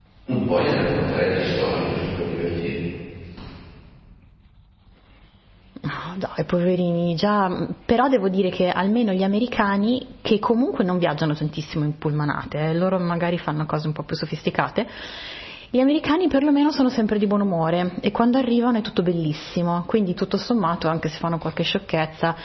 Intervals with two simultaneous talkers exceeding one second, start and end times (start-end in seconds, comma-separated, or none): none